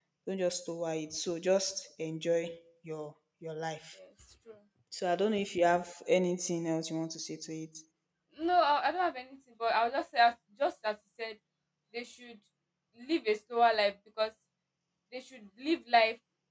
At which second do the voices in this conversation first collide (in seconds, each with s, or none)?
none